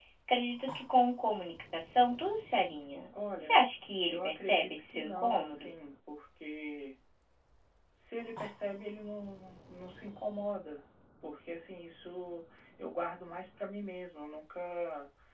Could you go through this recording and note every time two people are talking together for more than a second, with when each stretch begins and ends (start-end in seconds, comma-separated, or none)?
4.1-5.7